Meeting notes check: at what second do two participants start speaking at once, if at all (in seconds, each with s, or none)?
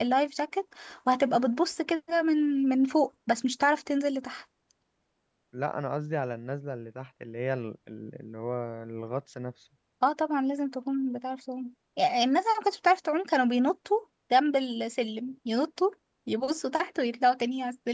none